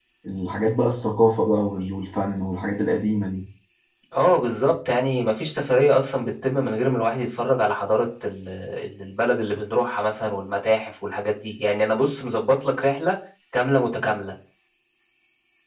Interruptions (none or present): none